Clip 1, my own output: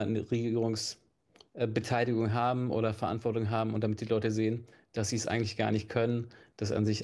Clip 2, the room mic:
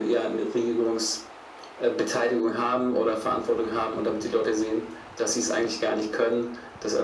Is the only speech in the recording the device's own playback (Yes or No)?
Yes